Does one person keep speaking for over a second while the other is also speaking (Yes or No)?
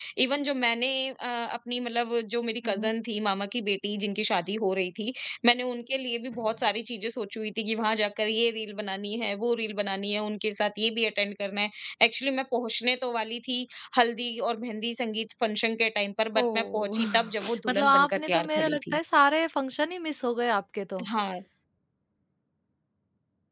Yes